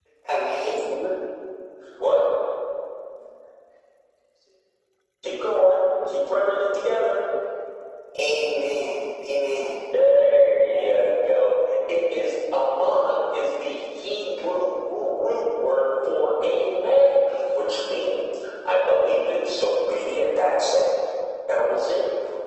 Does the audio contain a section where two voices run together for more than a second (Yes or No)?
No